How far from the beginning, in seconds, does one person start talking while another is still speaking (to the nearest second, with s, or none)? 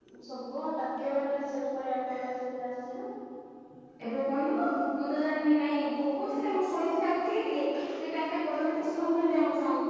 none